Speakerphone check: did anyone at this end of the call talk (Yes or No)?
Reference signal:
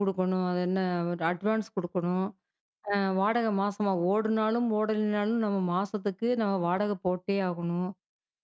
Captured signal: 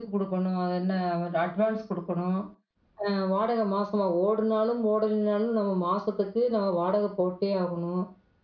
No